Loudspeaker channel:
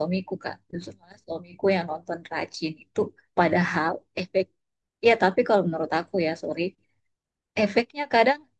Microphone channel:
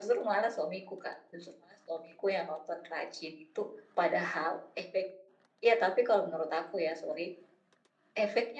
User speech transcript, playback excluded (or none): none